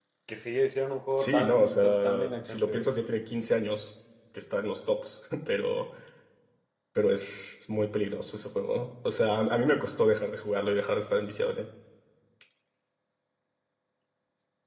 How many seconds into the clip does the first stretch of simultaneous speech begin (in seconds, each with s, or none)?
1.2 s